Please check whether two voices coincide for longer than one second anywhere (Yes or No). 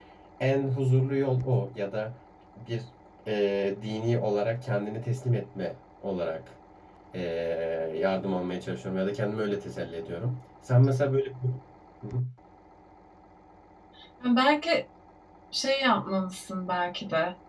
No